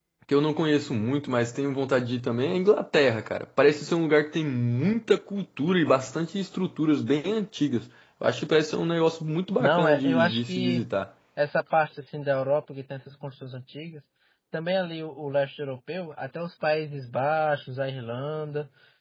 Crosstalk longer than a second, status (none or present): present